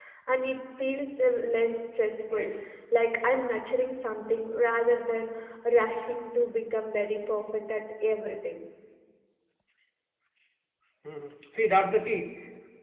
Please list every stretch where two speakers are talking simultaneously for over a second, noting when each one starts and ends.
none

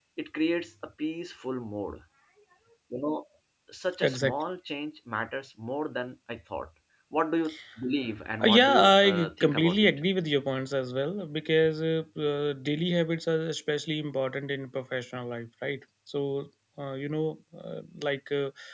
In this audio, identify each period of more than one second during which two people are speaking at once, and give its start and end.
8.4-9.9

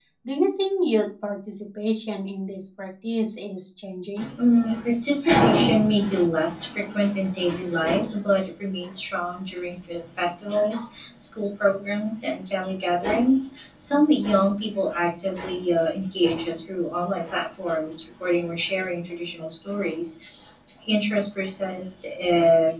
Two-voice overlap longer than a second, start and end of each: none

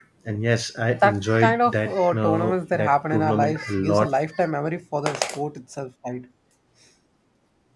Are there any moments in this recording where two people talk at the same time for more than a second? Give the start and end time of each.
1.0-4.1

